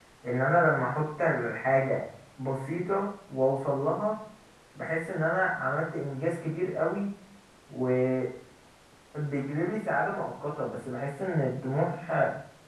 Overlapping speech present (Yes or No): No